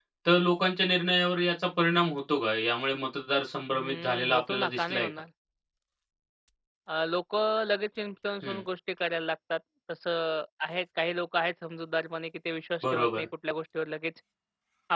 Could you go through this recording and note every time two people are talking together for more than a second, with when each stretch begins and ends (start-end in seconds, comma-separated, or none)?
3.7-5.1